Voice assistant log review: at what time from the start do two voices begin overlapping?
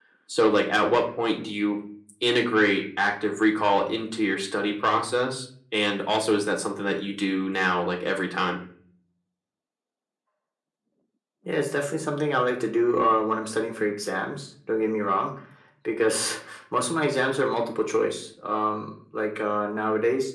none

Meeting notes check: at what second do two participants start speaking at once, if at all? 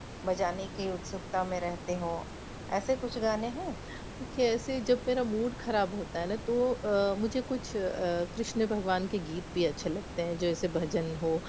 none

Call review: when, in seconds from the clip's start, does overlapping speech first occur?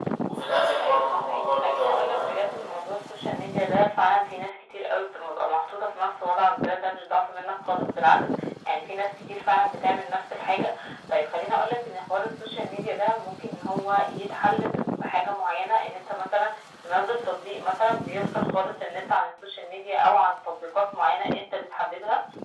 0.8 s

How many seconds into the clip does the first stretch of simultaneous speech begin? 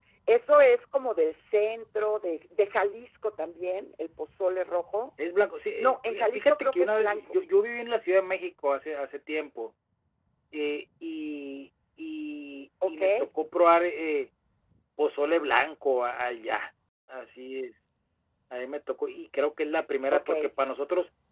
5.8 s

